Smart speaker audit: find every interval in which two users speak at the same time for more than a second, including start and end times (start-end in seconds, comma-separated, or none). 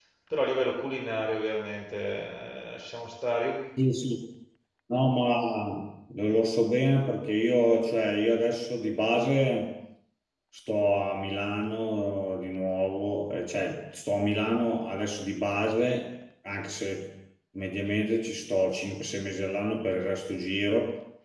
none